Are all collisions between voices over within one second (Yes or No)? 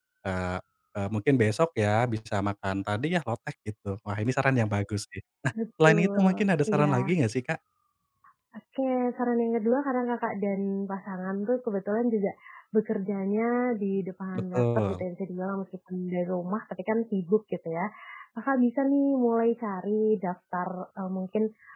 No